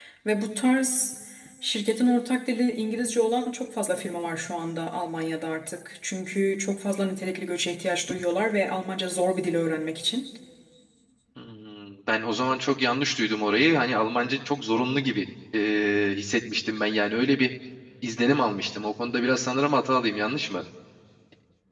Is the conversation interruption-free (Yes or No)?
Yes